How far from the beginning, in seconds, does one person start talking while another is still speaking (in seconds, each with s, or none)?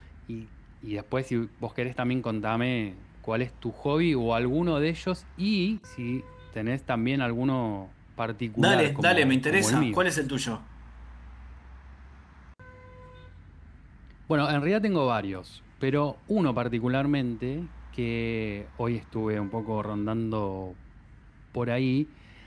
8.6 s